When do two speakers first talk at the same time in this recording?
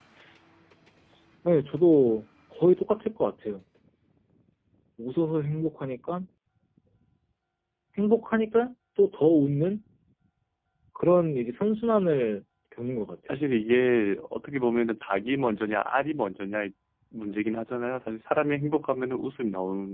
none

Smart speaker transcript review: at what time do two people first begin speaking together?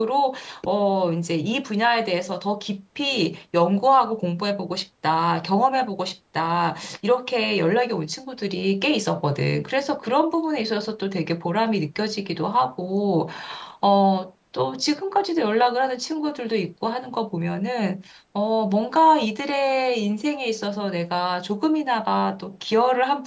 none

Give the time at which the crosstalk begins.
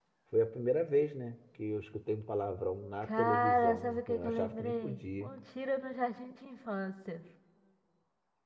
3.0 s

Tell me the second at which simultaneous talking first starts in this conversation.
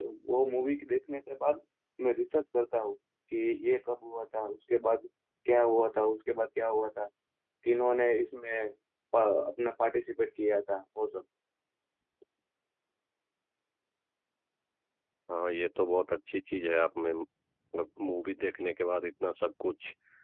none

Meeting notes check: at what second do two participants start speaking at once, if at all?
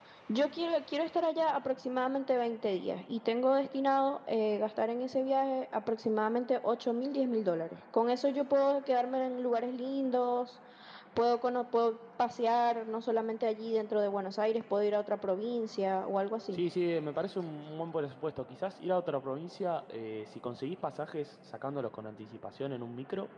none

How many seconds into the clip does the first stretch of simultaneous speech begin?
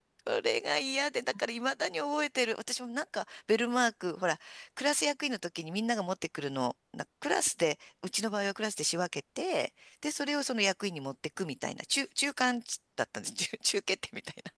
none

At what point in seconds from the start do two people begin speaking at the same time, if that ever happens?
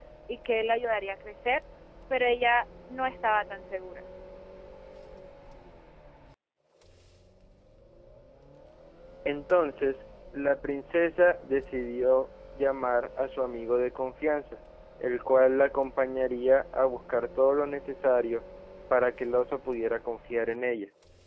none

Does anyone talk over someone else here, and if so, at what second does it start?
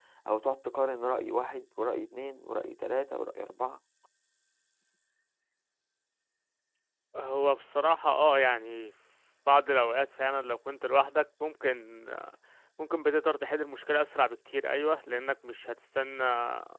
none

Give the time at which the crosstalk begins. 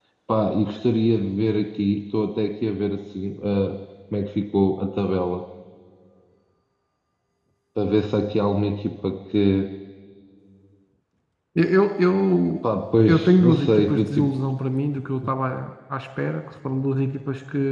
13.1 s

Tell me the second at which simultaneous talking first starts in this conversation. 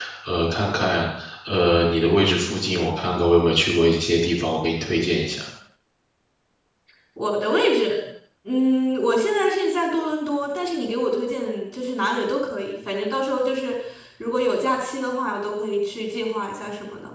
none

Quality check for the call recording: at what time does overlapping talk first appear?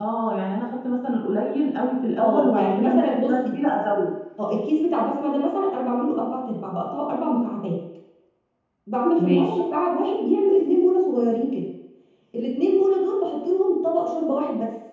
2.2 s

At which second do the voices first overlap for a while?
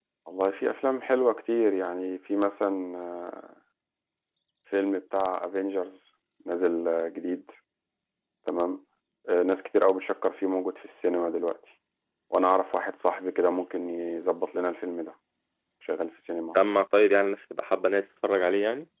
none

